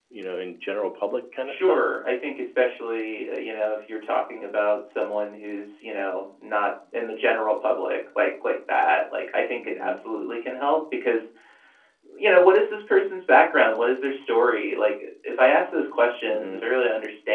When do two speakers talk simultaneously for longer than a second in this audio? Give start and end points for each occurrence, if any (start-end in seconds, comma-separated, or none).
none